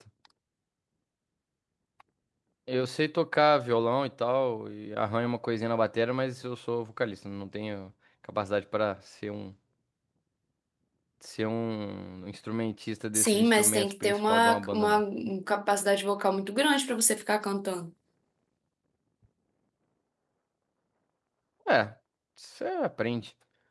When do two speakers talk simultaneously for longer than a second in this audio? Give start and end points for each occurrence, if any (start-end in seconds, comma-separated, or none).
13.1-15.0